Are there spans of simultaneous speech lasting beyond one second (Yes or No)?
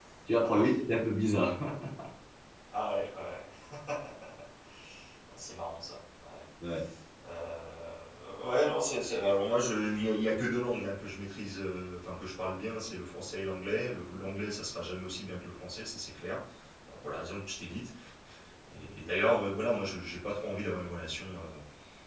No